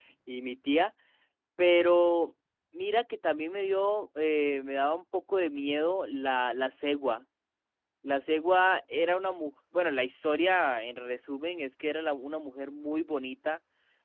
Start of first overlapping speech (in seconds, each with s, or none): none